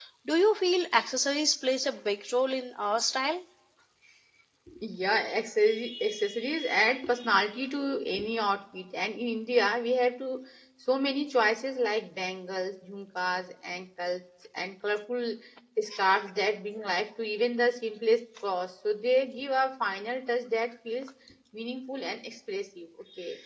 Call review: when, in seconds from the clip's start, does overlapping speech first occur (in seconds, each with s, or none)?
none